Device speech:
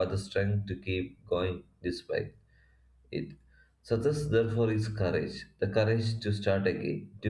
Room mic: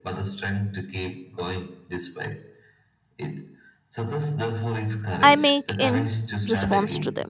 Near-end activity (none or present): present